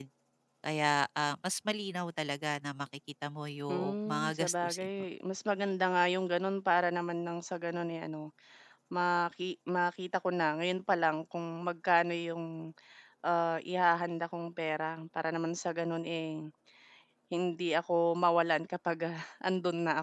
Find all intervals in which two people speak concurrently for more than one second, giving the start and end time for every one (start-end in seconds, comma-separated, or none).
3.7-4.9